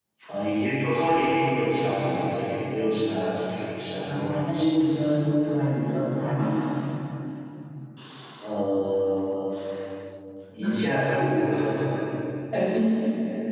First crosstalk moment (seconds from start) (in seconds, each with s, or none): 4.0 s